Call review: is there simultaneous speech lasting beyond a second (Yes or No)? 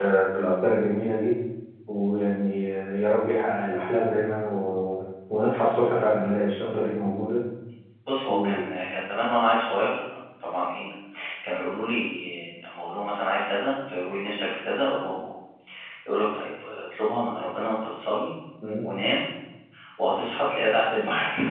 No